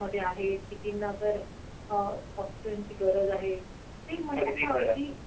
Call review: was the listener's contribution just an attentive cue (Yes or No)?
Yes